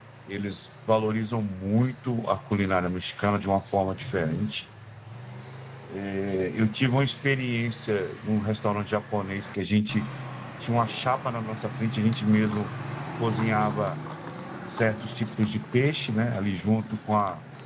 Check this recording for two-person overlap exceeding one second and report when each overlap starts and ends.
none

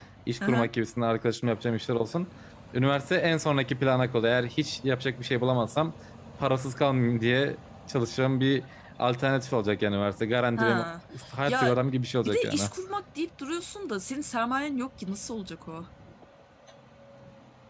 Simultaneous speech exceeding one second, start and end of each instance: none

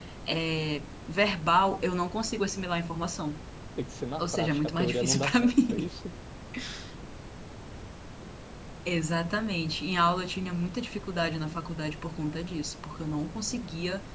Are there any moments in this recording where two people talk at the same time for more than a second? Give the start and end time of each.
4.2-5.9

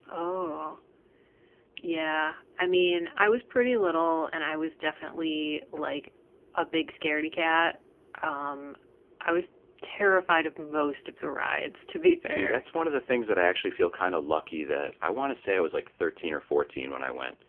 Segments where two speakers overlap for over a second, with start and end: none

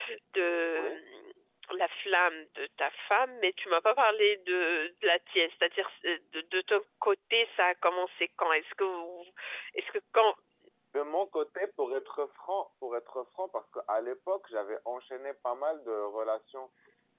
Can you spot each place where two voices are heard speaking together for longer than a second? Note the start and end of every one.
none

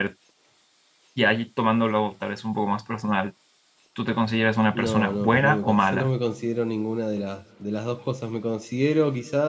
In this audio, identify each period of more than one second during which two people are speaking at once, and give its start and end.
4.7-6.1

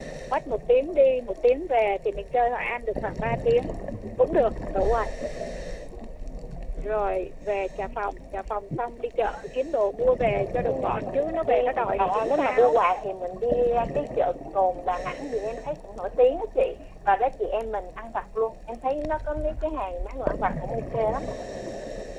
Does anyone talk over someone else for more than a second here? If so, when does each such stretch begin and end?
11.5-12.8

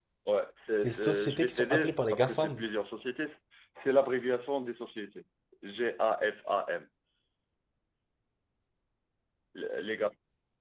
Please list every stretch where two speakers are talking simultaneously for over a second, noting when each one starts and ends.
0.8-2.6

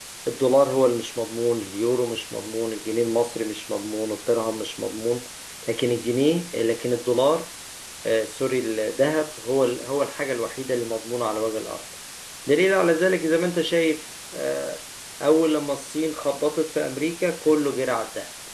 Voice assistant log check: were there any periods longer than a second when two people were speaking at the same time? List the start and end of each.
none

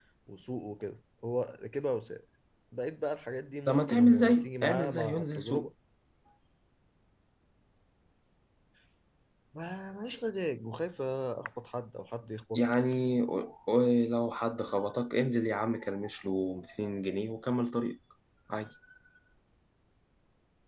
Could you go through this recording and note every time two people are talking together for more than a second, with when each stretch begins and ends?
3.7-5.7

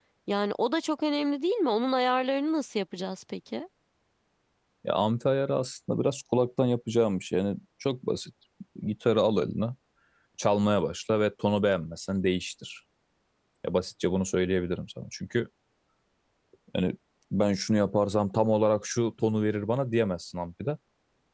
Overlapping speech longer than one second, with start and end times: none

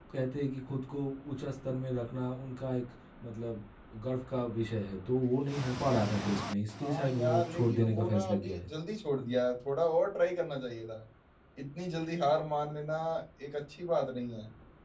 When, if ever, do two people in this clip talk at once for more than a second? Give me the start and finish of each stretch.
6.8-8.7

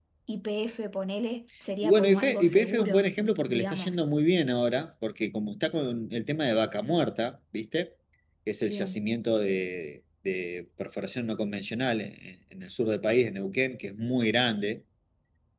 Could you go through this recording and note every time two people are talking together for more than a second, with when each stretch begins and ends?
1.8-4.0

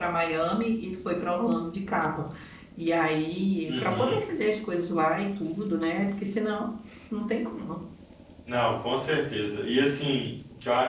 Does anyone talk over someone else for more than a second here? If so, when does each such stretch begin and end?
none

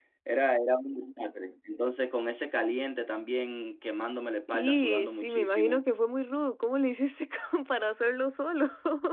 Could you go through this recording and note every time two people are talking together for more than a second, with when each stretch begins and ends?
4.5-5.8

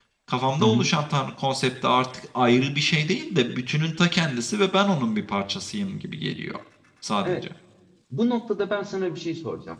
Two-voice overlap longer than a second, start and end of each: none

